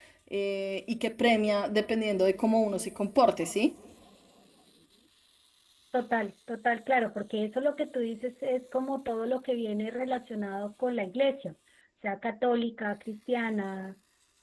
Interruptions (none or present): none